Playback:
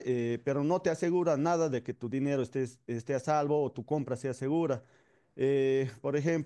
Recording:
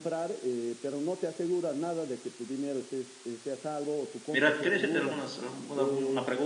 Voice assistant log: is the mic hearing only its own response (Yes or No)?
No